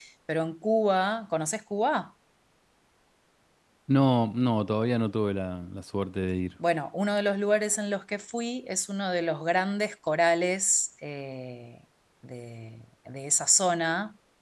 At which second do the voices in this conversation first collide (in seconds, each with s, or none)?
none